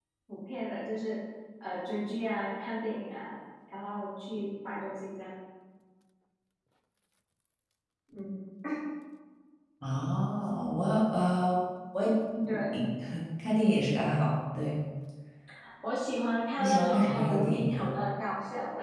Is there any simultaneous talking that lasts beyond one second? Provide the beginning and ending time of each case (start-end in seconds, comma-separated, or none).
16.6-17.9